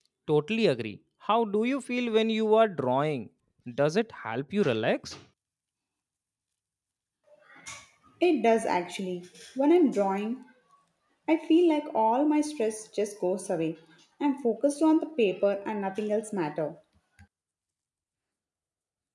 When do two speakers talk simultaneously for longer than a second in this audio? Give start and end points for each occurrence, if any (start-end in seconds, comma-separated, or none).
none